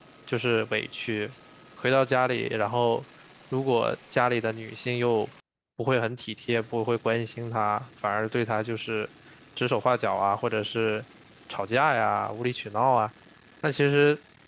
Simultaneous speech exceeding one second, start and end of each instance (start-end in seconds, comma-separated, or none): none